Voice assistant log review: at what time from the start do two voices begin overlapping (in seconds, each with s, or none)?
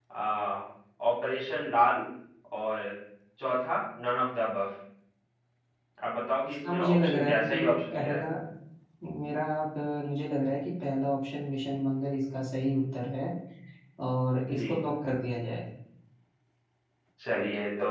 6.4 s